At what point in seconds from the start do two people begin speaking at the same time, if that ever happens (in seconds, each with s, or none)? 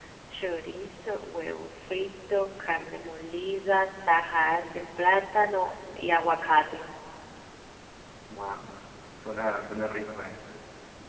none